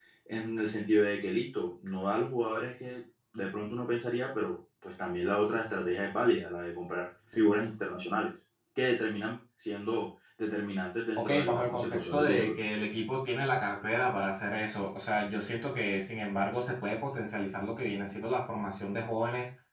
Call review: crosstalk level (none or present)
present